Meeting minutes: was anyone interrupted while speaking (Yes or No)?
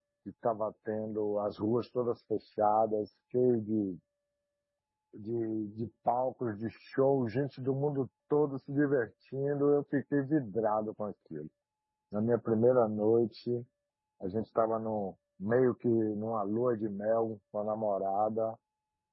No